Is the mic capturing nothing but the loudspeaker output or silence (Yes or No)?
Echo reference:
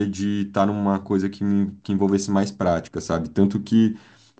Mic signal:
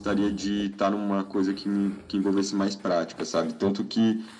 Yes